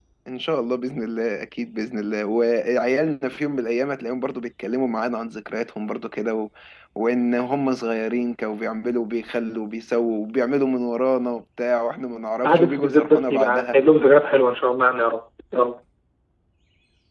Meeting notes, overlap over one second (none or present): present